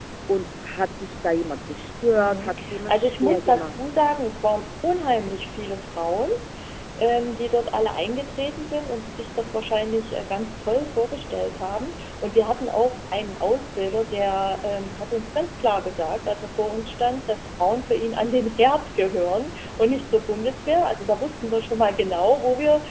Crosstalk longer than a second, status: present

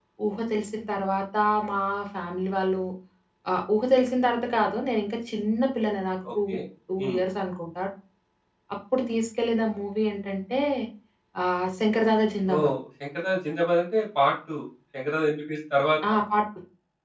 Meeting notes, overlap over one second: none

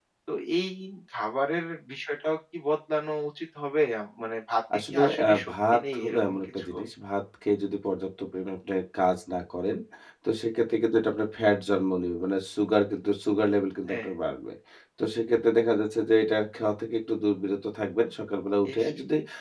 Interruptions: present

